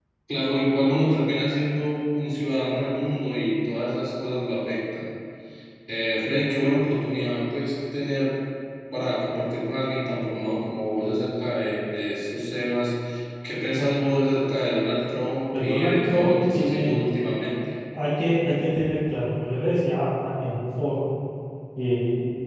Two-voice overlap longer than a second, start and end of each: 15.6-17.0

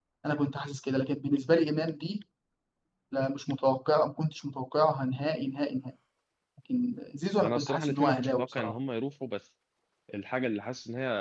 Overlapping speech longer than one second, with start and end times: 7.4-8.8

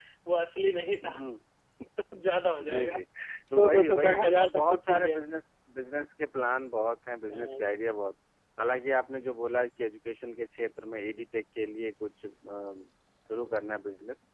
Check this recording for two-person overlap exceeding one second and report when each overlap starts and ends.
3.5-5.2

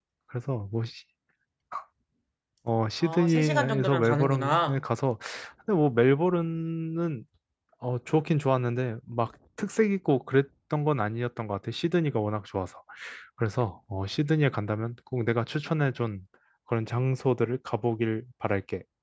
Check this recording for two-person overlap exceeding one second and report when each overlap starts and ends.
3.0-4.8

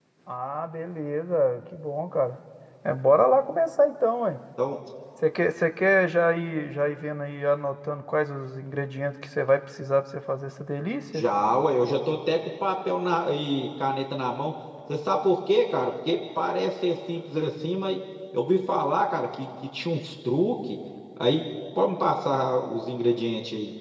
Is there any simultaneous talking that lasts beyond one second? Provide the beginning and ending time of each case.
none

